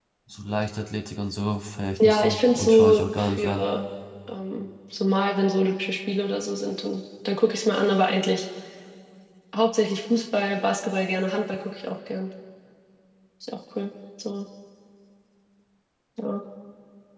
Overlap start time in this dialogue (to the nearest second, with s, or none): 2 s